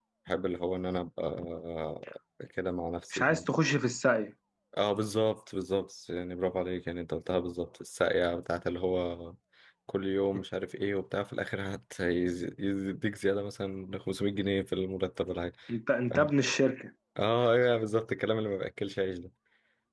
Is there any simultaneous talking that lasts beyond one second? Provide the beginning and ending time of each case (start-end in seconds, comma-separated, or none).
none